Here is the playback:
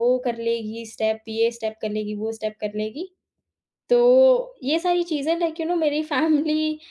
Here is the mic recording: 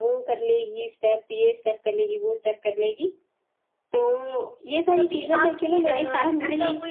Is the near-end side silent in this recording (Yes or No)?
No